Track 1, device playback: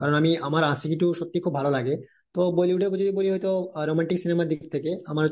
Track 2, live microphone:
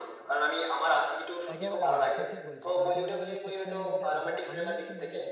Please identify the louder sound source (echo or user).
echo